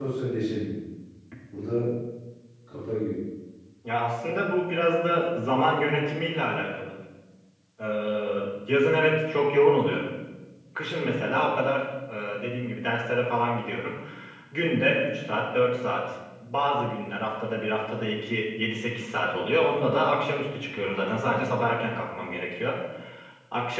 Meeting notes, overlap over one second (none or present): none